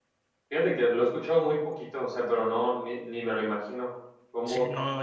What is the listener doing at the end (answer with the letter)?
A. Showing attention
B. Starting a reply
B